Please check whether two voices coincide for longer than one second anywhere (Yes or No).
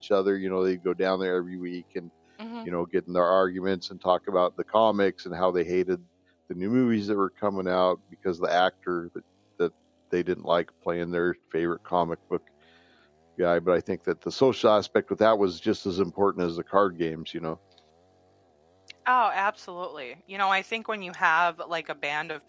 No